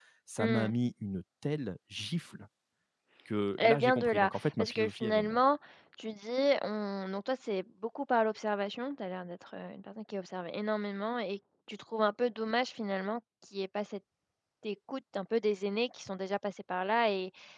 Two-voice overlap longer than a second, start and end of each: 3.6-5.4

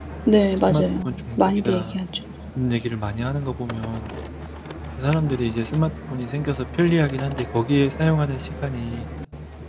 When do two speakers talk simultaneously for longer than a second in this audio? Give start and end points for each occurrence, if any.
0.7-2.0

